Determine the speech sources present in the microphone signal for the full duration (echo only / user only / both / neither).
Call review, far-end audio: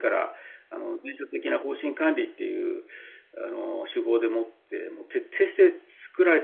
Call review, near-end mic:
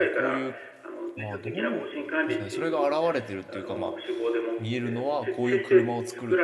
both